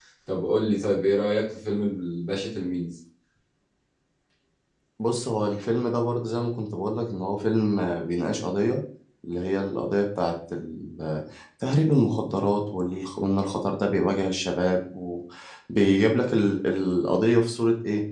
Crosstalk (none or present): none